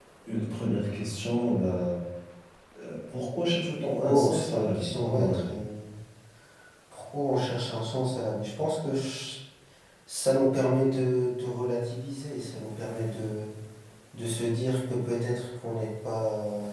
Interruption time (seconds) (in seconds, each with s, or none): 4.0 s